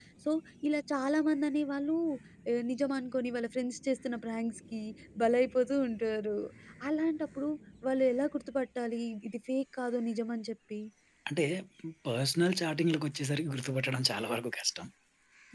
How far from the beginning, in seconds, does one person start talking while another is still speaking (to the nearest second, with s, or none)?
none